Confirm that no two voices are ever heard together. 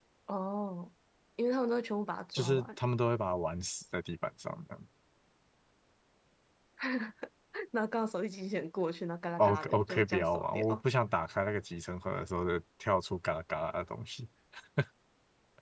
No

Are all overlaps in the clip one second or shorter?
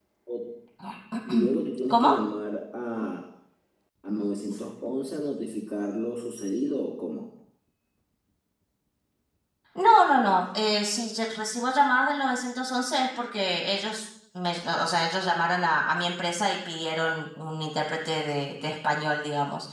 Yes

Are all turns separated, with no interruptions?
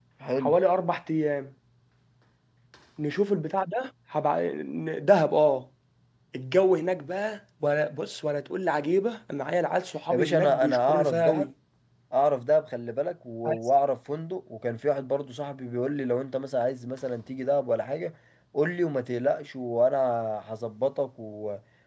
No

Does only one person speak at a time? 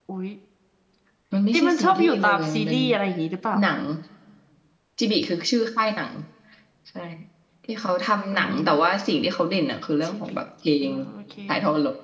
No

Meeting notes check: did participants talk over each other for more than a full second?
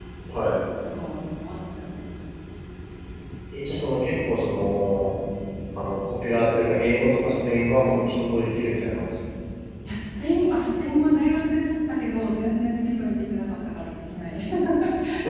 No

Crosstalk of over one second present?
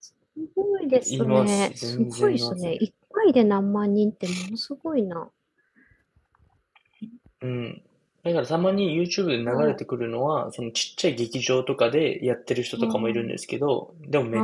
Yes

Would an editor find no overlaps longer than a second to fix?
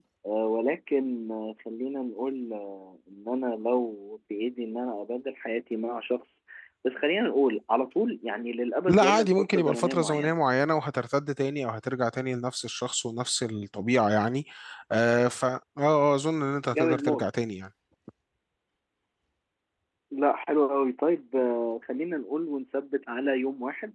No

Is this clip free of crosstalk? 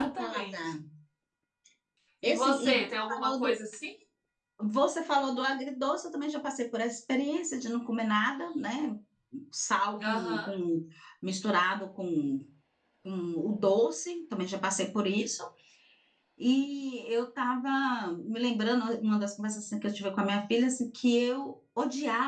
No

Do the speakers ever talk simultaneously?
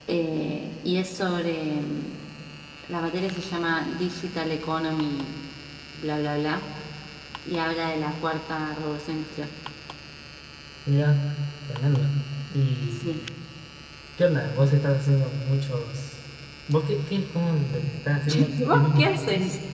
Yes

